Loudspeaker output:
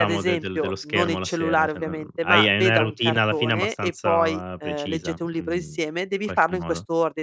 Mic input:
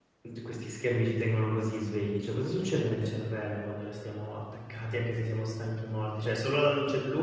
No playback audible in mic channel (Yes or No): Yes